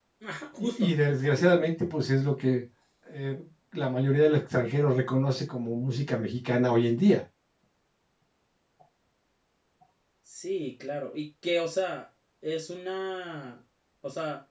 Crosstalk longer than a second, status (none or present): none